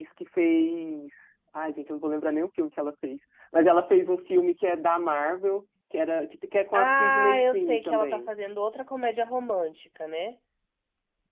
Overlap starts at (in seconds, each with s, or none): 6.7 s